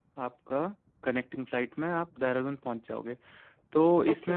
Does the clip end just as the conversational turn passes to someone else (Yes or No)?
No